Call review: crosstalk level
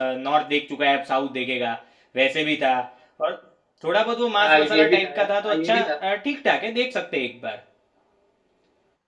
present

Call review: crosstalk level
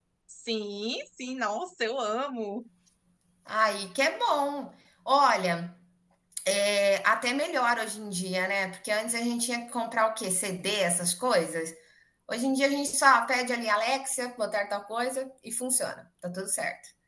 none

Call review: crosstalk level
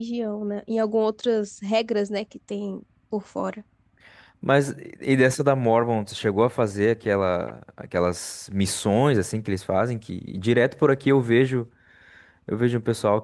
none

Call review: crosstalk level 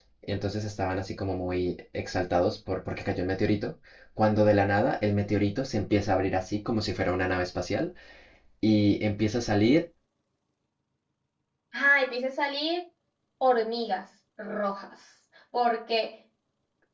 none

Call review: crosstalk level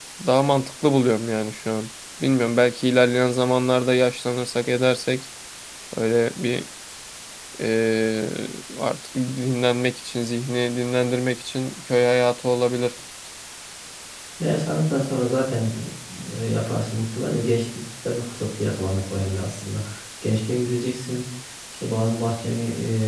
none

